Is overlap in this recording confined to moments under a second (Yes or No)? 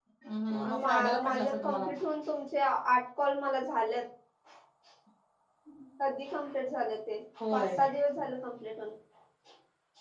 No